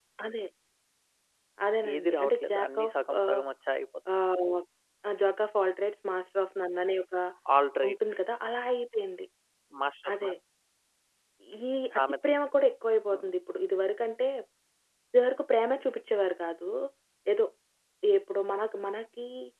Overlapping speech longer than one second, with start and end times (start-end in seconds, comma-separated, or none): 1.9-3.4